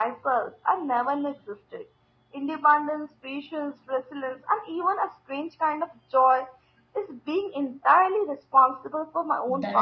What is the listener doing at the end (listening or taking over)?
taking over